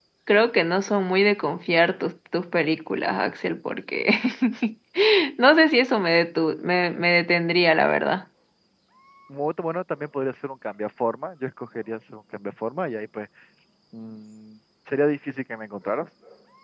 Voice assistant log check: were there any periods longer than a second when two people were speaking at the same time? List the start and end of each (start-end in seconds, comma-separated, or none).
none